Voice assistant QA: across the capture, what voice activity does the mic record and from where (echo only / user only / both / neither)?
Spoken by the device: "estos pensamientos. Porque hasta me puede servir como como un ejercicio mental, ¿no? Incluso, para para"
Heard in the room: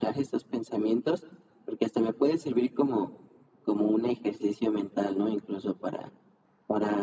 echo only